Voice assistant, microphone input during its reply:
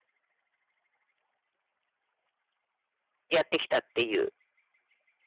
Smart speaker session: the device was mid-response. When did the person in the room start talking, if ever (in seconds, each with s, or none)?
3.3 s